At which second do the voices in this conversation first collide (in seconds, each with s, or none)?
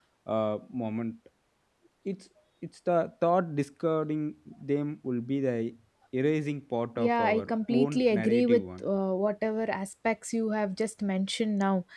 7.0 s